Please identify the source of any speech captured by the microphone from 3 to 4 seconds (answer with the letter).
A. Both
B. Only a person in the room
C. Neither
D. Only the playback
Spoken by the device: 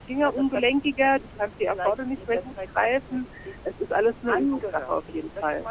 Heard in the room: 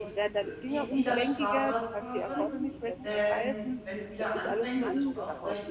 A